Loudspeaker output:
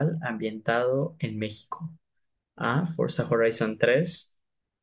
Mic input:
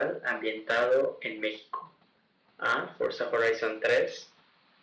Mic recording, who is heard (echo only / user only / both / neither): echo only